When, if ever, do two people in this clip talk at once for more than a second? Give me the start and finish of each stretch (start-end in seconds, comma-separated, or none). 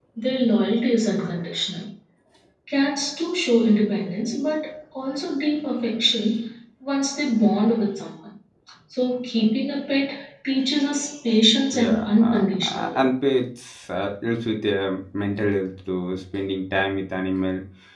11.9-13.1